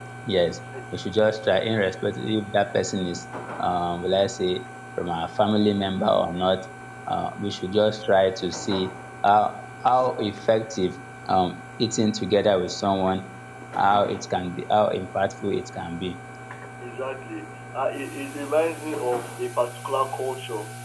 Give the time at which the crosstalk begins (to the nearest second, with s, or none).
none